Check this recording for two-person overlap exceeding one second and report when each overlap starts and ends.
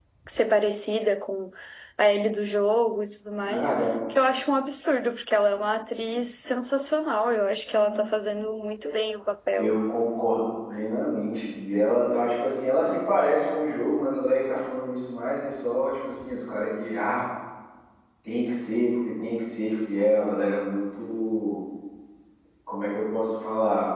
none

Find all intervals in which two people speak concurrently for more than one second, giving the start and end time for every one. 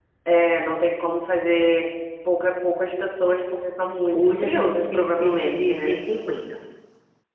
4.1-5.9

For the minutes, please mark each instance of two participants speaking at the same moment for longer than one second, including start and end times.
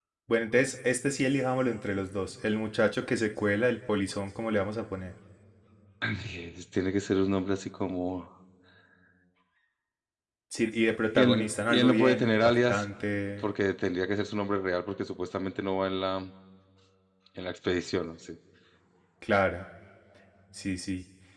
11.2-12.8

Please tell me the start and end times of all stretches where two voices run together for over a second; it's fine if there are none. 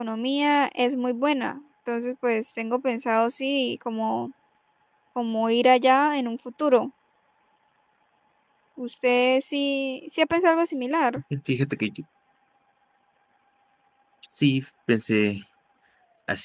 none

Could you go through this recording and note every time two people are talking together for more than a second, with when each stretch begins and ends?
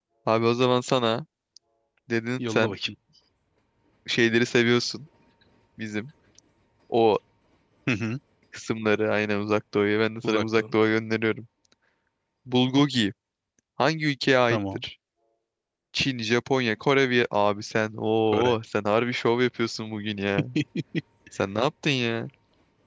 none

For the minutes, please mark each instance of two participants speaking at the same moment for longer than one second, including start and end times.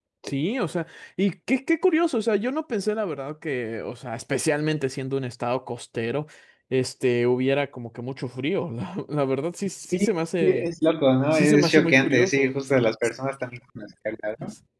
11.3-12.5

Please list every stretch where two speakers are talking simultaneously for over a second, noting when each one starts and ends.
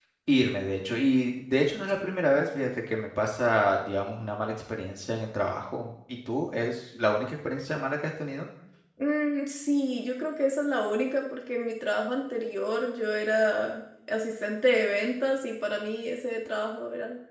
none

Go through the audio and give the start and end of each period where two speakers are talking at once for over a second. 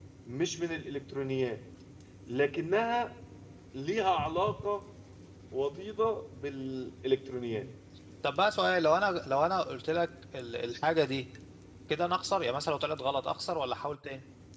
none

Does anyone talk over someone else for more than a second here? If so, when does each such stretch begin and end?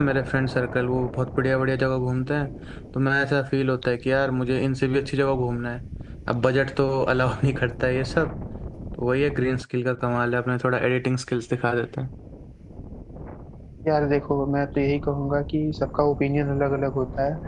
none

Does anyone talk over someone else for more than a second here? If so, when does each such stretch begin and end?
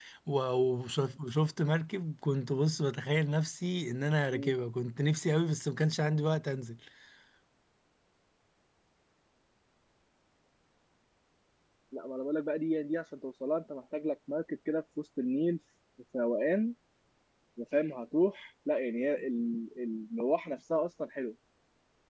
none

